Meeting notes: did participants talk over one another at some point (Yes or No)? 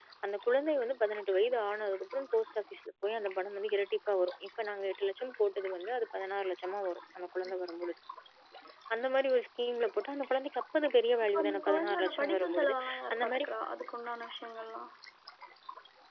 Yes